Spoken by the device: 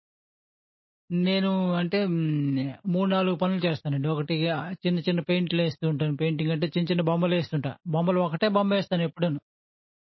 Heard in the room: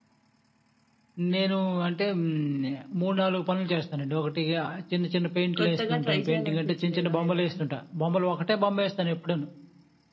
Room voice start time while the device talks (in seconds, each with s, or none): 5.6 s